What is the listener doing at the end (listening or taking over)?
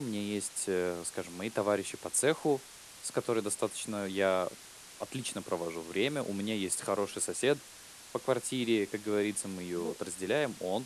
listening